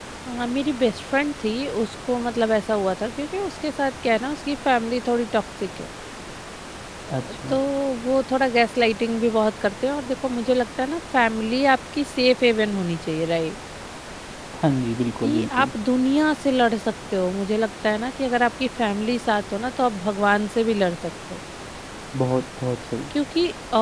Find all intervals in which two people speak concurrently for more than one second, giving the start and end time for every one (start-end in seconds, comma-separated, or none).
none